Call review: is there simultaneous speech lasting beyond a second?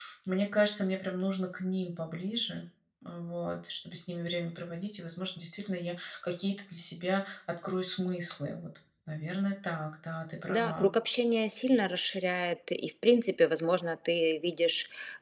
No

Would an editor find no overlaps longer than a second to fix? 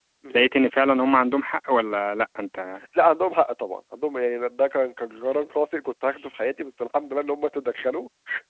Yes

